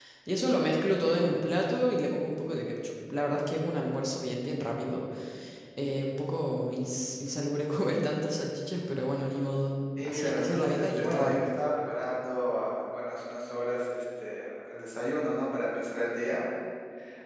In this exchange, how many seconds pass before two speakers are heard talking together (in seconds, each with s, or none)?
10.0 s